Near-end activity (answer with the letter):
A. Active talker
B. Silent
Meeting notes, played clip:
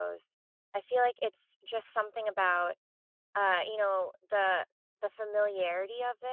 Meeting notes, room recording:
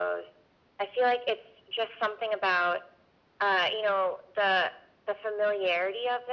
B